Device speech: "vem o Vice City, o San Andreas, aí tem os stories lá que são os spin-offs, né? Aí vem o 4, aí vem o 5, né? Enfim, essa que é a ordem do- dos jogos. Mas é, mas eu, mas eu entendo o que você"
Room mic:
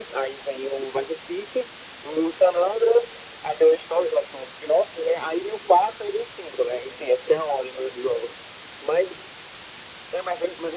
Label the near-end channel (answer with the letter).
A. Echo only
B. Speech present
A